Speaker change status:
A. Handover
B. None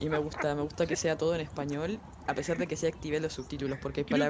B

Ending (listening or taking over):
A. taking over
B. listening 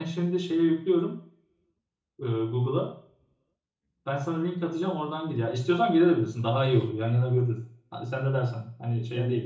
A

